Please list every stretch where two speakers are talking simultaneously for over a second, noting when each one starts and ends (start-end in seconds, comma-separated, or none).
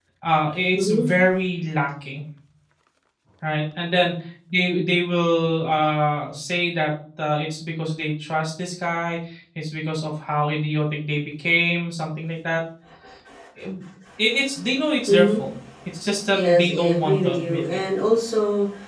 16.3-17.8